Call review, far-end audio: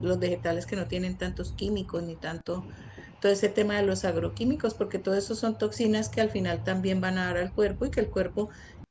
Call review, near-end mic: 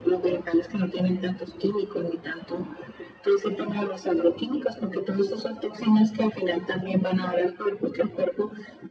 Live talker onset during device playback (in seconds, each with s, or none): none